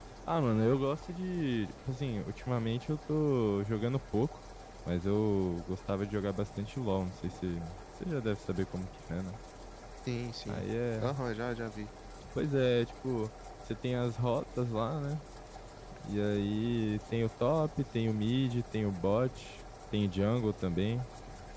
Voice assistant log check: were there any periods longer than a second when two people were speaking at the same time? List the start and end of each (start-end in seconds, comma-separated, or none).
none